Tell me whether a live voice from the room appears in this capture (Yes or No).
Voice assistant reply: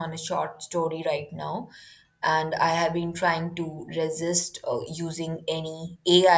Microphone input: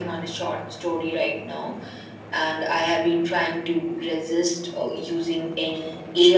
No